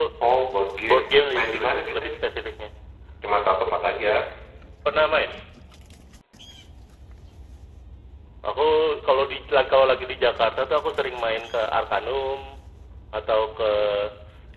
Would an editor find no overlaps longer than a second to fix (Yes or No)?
No